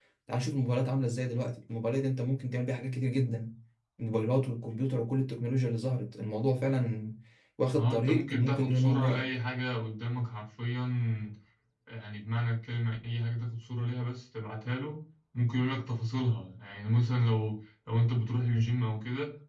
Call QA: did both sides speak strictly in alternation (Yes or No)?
No